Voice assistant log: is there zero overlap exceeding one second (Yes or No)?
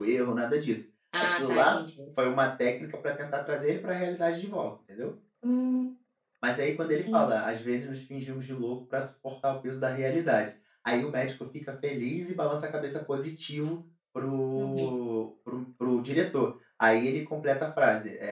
Yes